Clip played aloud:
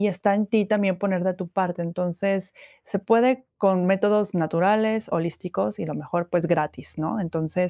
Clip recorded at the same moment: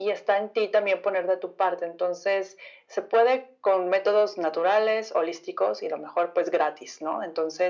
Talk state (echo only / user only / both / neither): echo only